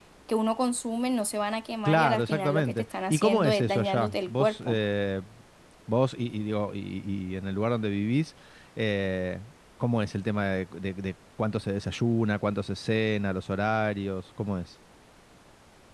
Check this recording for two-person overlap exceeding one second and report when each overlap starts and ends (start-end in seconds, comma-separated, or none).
1.9-4.8